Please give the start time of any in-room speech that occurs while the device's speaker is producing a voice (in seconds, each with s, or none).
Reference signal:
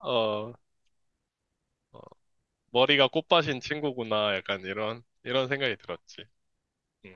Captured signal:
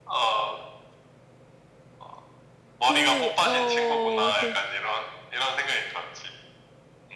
2.8 s